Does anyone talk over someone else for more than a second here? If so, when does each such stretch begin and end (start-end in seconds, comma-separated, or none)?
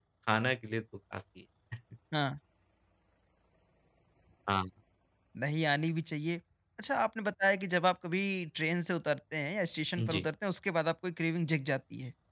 none